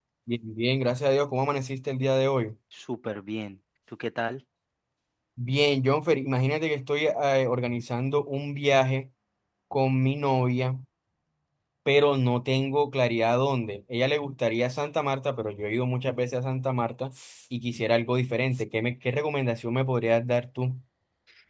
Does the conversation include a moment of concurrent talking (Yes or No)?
No